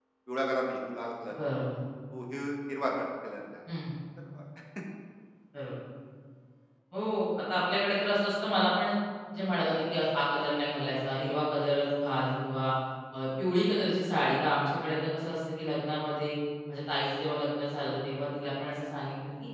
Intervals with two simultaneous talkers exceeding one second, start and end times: none

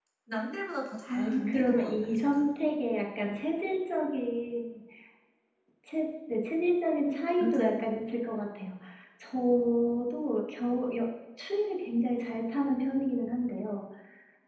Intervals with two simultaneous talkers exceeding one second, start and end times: 1.1-2.4

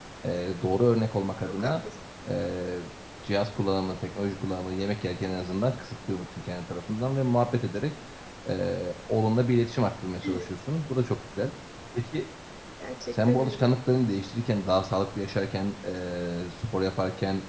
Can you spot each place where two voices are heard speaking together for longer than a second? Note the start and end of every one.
none

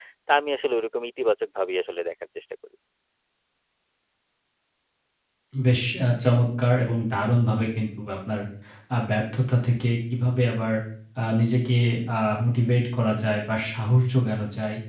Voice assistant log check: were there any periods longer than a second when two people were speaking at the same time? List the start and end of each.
none

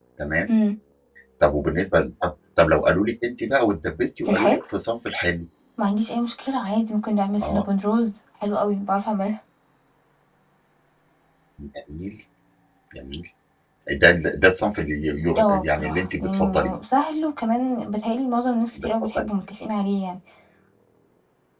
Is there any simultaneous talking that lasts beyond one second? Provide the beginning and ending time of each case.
15.4-16.8

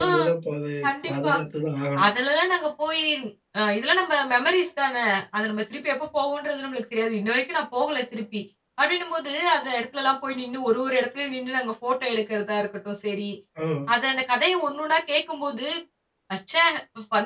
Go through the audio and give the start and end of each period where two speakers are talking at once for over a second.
none

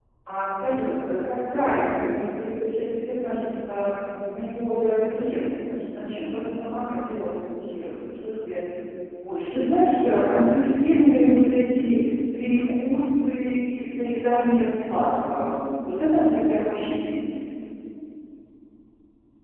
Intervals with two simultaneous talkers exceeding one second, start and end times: 9.5-11.4

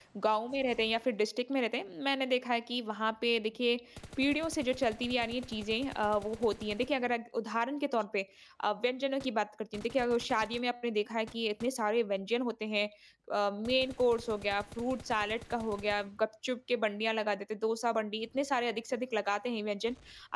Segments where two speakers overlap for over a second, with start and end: none

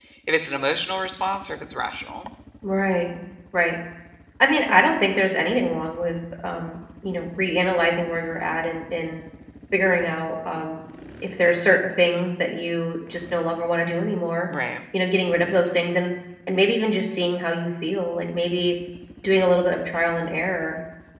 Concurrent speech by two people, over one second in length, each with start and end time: none

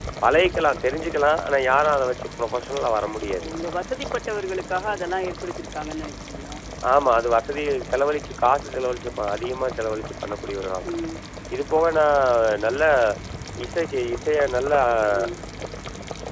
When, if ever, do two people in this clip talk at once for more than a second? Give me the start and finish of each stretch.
none

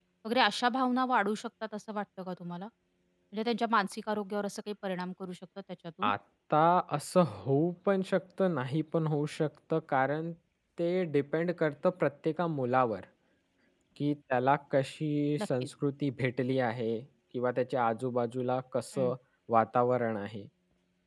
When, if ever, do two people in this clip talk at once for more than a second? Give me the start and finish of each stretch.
none

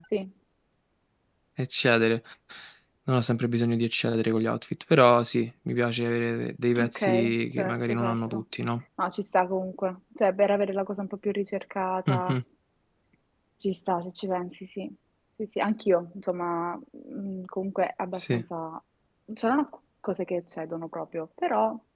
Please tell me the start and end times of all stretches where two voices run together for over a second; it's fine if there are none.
6.8-8.4

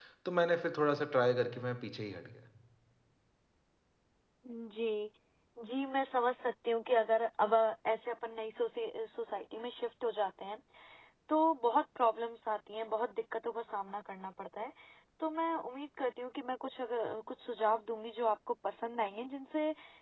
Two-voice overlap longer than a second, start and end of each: none

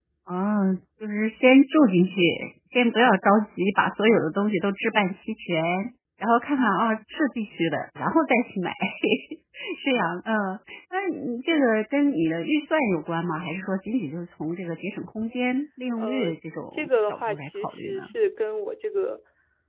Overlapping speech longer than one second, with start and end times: 16.7-18.1

